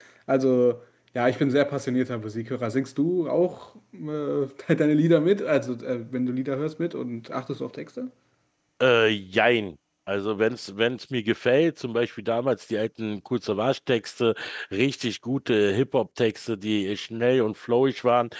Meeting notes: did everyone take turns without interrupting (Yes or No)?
Yes